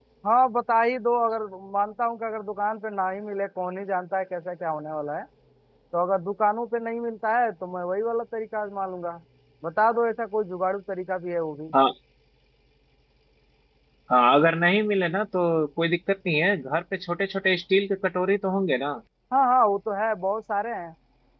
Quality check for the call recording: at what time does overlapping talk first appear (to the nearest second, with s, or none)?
none